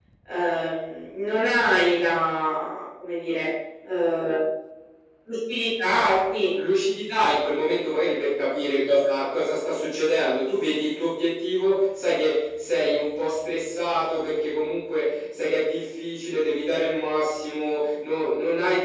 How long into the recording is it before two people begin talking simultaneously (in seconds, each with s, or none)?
none